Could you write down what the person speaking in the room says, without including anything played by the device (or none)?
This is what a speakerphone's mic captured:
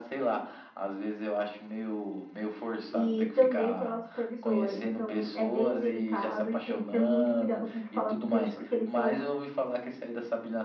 e também pela supervisora. Então, é bem delicado e tem que ter muito cuidado com o que falar com o cliente, porque eles são